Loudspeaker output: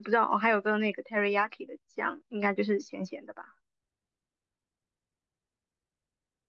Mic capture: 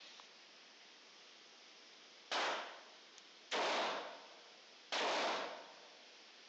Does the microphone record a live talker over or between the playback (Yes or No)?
No